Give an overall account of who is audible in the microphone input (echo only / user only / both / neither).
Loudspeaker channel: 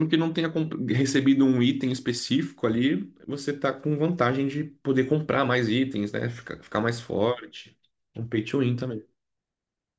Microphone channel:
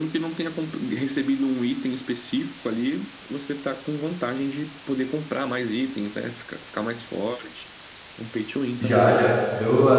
both